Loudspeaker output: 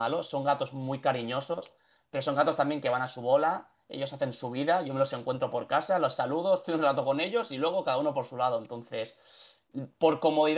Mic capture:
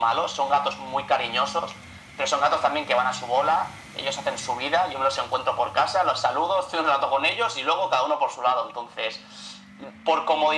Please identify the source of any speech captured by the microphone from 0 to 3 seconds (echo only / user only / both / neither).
echo only